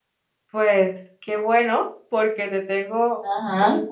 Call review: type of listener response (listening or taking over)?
listening